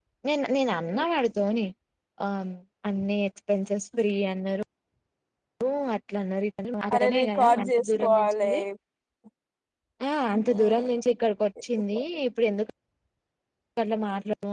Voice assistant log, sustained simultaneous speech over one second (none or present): present